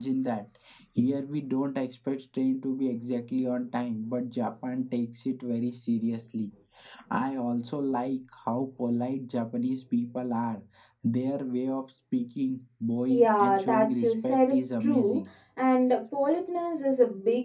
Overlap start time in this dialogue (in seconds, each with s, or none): 13.1 s